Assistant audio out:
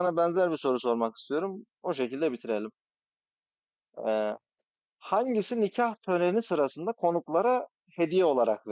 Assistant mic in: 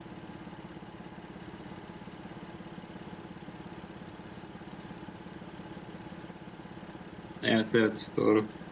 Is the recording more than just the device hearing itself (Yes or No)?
Yes